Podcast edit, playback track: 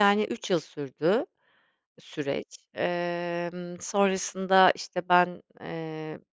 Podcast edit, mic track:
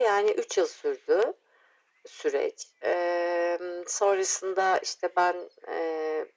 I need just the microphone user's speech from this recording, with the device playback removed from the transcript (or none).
none